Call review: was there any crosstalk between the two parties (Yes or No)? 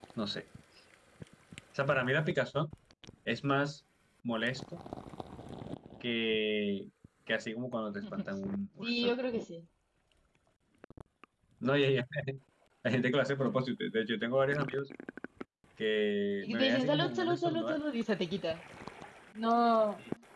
Yes